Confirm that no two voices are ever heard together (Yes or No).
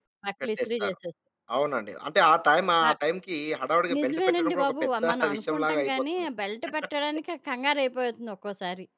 No